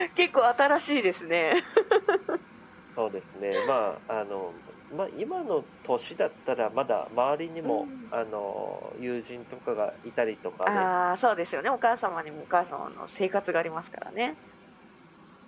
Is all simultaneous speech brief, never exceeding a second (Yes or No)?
Yes